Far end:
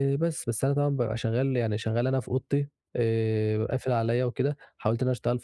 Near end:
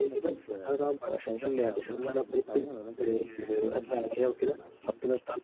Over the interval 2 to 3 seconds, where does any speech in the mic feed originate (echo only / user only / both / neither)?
both